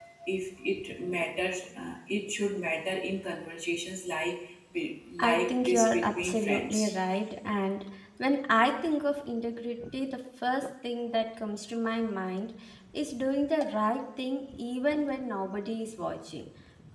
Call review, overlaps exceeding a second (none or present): present